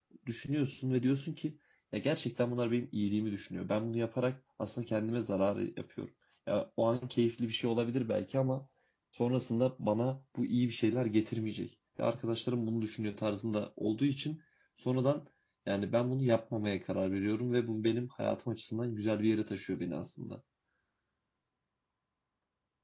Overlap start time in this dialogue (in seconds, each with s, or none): none